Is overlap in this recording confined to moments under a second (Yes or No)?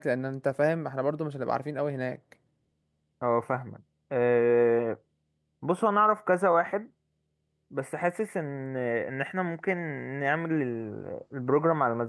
Yes